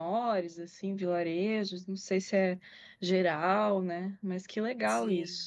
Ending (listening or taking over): taking over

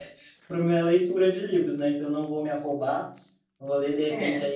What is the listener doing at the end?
listening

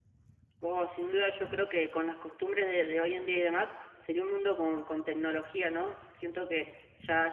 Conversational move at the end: listening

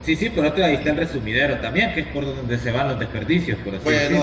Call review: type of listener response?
taking over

